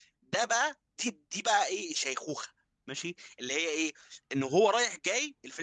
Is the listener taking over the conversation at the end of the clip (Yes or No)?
No